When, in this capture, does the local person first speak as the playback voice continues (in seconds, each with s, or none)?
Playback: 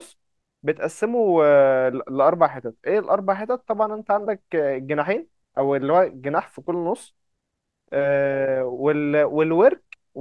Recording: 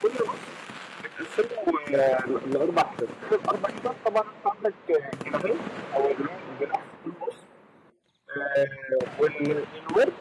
none